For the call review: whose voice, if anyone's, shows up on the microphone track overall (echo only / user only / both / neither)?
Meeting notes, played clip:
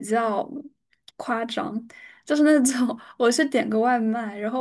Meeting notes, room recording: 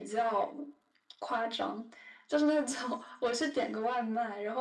echo only